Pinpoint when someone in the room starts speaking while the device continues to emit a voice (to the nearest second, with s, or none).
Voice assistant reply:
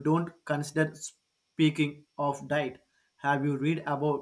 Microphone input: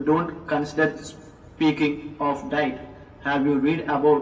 none